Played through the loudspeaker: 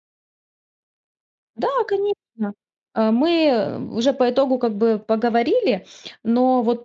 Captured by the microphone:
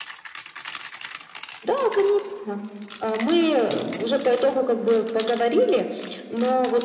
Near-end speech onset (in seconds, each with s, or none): none